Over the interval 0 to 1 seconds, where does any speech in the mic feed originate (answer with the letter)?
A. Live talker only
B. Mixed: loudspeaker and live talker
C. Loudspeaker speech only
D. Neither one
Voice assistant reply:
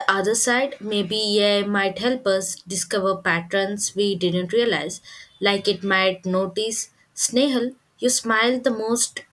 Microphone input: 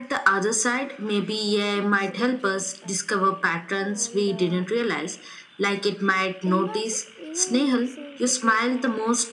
C